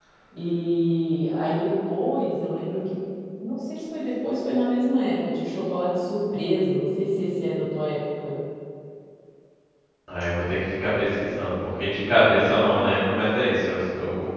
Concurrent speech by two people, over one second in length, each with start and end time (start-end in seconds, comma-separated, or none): none